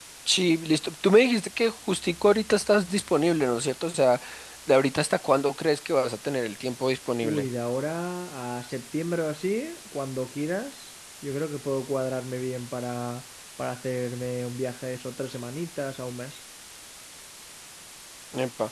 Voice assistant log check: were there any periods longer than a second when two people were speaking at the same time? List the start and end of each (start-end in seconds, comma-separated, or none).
none